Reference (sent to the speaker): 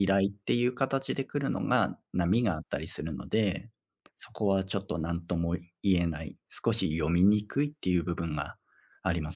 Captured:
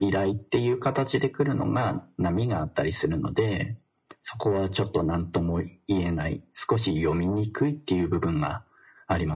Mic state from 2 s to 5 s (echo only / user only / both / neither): echo only